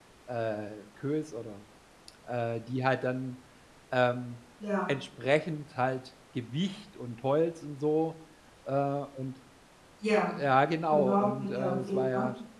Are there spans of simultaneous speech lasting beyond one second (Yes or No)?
Yes